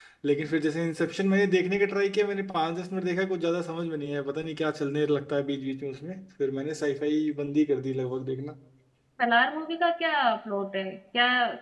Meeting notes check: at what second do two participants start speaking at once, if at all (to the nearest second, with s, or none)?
none